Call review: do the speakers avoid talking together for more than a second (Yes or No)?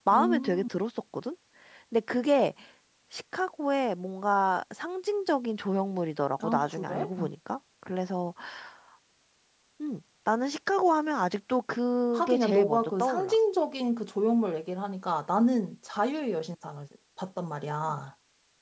No